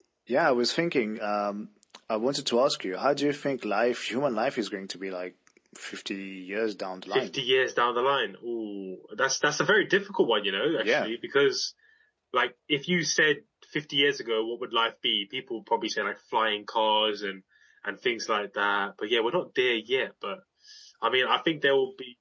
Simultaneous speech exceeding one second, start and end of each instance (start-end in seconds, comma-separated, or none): none